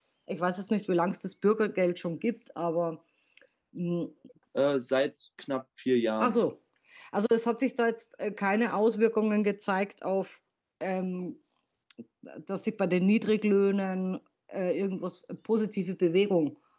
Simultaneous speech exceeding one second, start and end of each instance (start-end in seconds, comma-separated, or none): none